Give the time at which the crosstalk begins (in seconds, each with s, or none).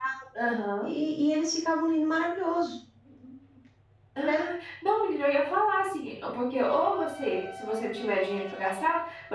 none